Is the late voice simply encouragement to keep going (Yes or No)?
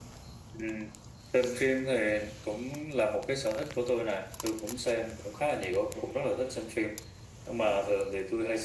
Yes